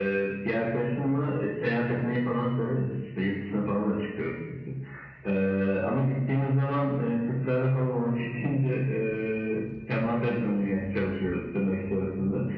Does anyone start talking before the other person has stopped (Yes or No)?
No